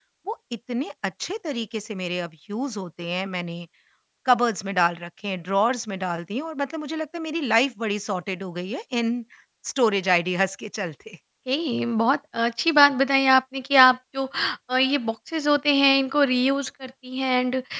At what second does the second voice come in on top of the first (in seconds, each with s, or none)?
none